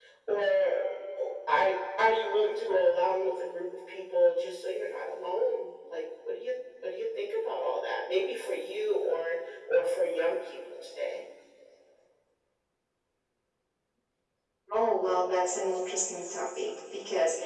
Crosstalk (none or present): none